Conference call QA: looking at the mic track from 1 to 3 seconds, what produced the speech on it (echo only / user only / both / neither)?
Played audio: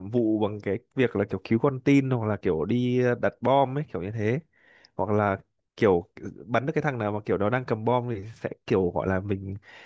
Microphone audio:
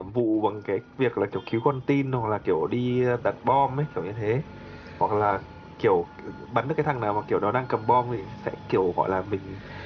echo only